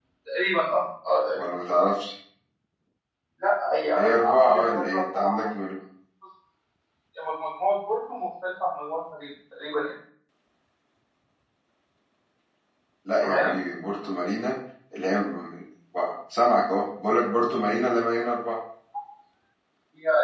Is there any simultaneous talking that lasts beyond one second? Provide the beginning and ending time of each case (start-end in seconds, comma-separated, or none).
4.0-5.4